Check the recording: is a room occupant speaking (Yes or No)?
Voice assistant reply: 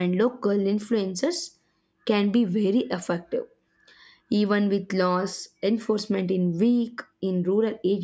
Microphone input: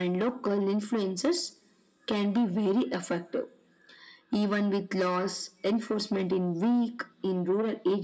No